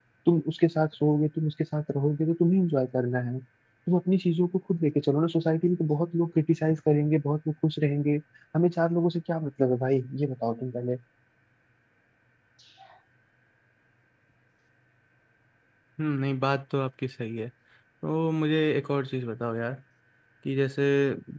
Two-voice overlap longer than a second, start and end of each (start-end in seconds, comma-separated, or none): none